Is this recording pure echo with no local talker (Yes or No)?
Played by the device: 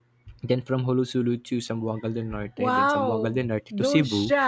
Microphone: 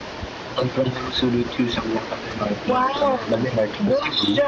Yes